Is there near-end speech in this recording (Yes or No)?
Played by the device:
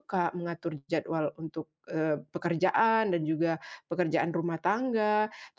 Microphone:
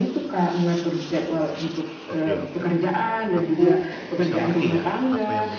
Yes